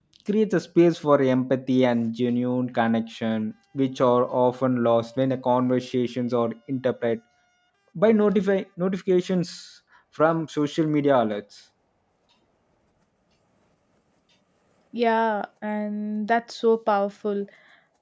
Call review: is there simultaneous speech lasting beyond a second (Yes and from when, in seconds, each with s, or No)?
No